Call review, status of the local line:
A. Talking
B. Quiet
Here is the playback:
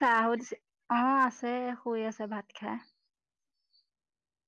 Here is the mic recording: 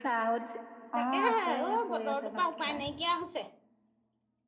A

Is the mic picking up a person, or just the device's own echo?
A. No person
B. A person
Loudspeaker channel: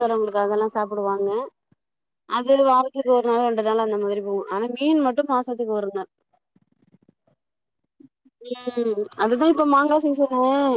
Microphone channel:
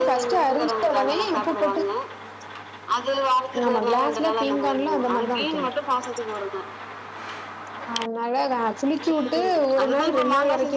B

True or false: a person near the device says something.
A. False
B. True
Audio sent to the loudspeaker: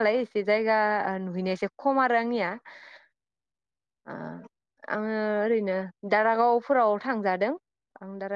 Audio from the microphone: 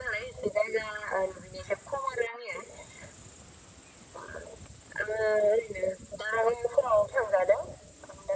A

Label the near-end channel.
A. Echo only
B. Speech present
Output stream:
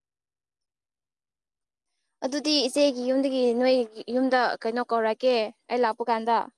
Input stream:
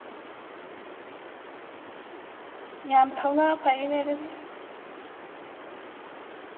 B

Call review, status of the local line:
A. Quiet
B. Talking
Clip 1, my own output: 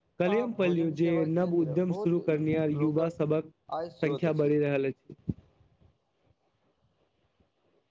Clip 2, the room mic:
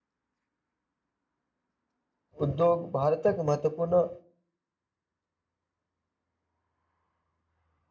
B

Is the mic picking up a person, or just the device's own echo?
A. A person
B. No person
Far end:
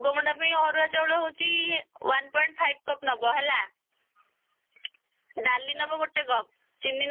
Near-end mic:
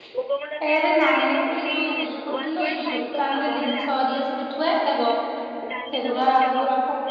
A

